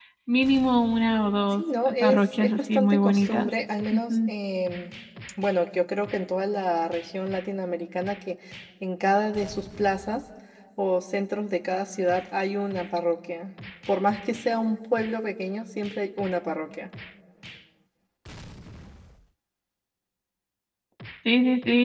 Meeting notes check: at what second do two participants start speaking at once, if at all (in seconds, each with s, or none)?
1.5 s